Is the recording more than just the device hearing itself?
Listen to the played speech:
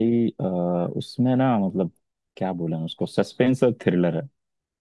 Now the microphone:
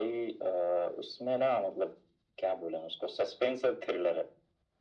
No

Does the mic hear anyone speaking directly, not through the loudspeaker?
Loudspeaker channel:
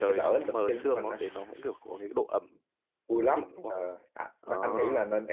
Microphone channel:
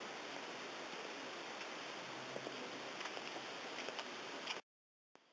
No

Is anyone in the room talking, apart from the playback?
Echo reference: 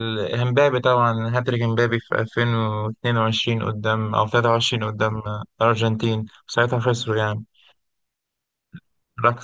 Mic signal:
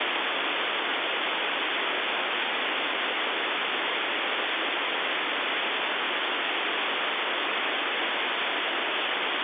No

